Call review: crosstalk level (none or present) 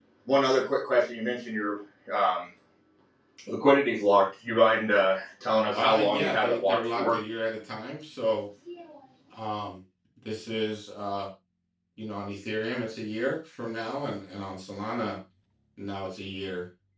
present